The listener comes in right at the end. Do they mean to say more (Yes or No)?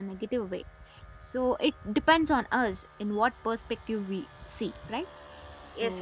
Yes